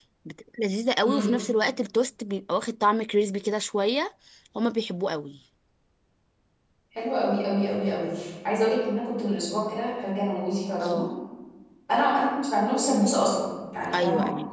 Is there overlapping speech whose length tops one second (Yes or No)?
No